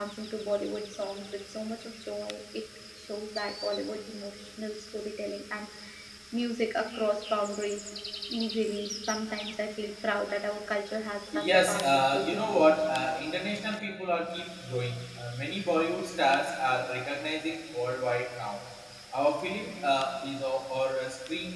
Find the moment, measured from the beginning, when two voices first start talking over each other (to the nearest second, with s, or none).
11 s